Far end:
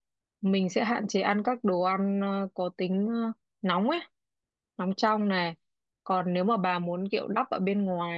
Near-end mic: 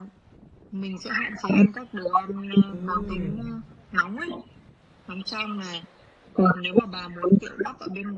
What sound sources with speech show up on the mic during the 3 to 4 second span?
both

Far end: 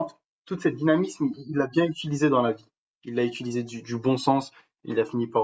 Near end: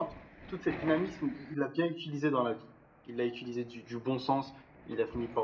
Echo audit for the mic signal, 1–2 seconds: echo only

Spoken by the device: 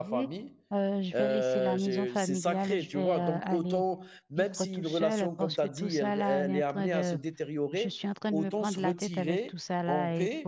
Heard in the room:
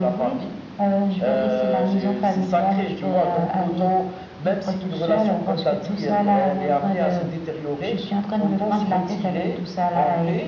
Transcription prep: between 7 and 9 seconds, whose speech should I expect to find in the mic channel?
echo only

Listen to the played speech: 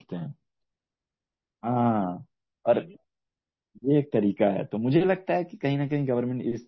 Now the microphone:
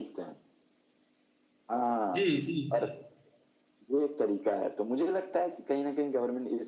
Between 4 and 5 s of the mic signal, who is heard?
echo only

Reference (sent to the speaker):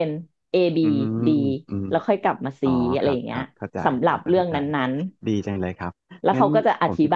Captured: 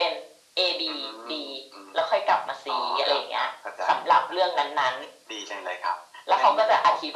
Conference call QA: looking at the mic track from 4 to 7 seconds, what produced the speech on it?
echo only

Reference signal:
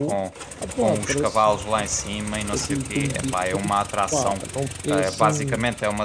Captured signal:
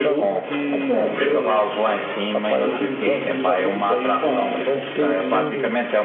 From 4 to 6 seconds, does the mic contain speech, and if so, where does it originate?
both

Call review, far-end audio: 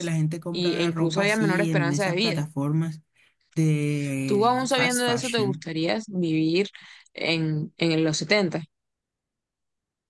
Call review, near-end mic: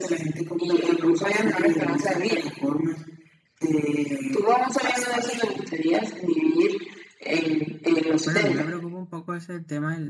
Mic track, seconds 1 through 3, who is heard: echo only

